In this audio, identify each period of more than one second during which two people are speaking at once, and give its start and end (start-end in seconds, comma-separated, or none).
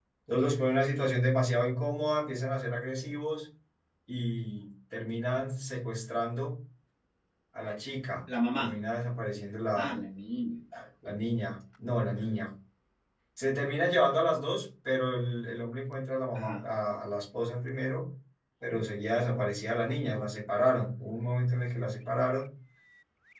none